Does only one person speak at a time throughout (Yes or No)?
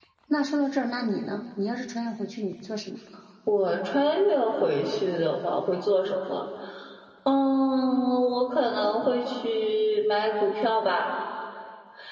Yes